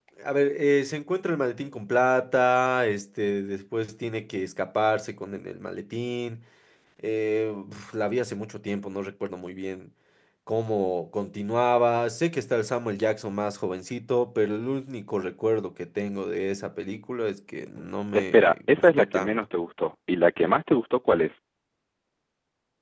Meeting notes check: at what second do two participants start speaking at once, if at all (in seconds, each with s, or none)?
18.1 s